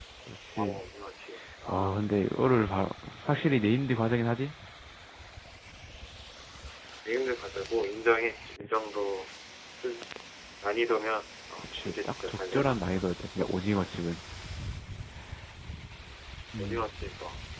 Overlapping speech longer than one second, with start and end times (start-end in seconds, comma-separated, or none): 11.6-13.0